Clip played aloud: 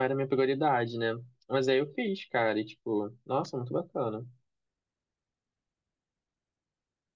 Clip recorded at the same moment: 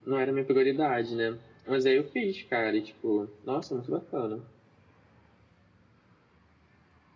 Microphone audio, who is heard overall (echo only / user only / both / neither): echo only